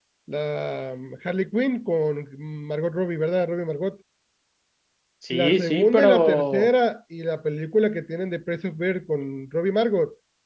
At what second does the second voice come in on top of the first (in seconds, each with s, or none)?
5.3 s